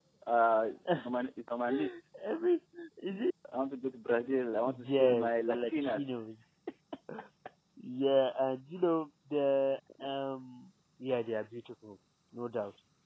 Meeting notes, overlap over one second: present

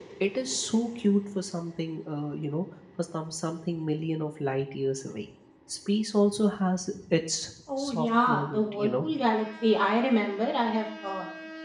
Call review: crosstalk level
present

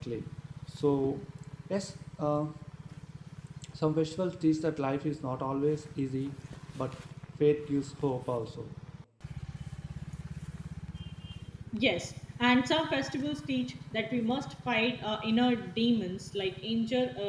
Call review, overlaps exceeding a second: none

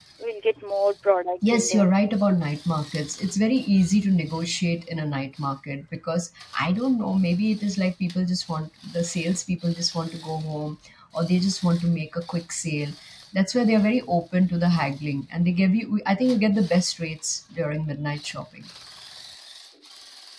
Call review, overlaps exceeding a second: none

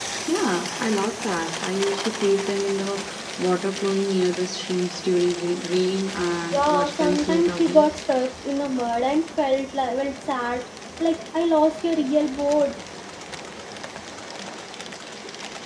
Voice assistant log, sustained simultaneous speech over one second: present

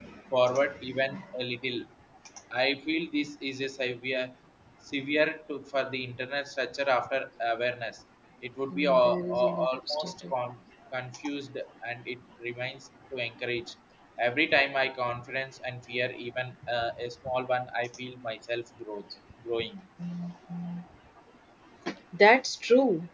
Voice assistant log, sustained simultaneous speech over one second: present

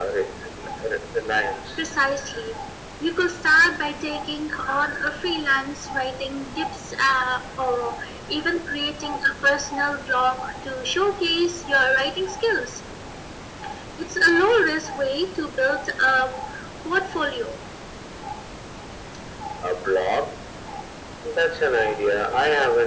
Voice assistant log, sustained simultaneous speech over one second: none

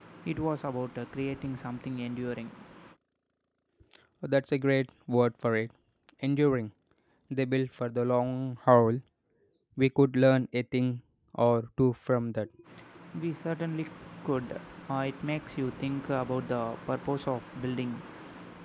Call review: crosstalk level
none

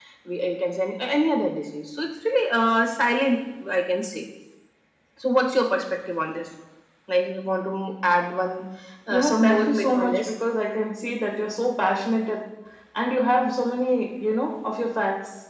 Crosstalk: present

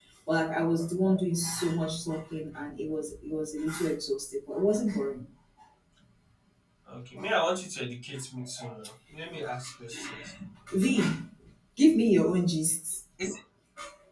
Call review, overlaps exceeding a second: none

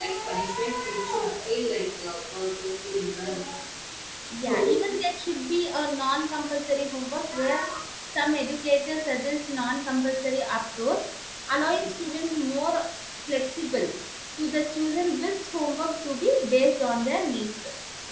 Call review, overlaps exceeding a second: none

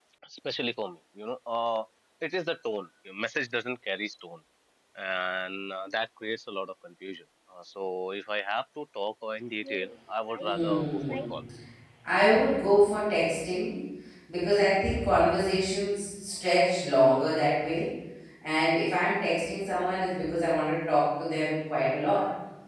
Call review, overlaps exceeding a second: present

